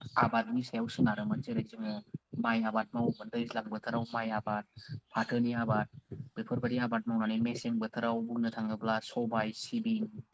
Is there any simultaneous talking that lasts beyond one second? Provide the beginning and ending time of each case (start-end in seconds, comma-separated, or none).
none